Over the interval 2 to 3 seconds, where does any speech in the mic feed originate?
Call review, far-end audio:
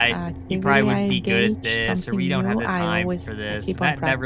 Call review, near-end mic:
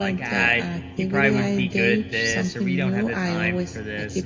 echo only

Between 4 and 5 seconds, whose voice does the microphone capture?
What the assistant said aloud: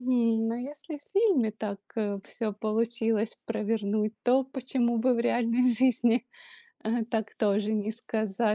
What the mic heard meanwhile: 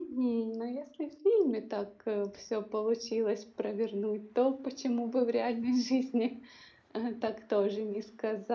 echo only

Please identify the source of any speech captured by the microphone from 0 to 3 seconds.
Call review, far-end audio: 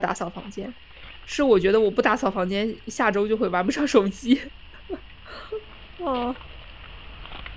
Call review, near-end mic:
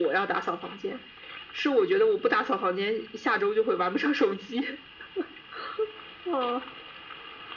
echo only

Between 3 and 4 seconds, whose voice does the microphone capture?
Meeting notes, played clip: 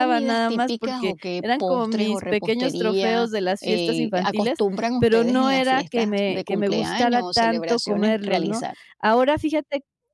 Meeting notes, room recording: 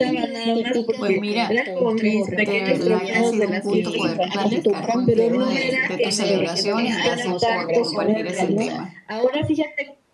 both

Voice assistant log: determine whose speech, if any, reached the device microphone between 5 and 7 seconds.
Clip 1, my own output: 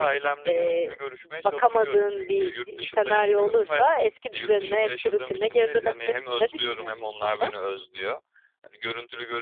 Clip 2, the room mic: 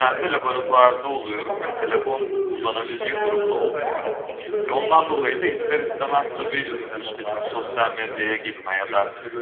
both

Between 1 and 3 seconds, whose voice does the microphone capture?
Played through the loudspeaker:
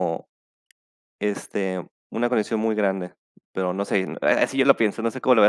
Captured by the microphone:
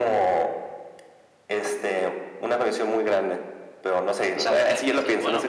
echo only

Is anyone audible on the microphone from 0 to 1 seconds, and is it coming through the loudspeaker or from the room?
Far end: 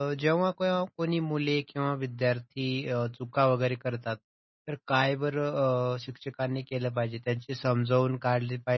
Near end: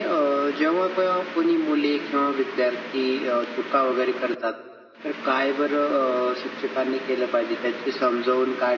echo only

